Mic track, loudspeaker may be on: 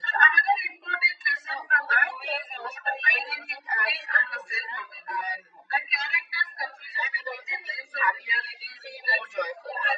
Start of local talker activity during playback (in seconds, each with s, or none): none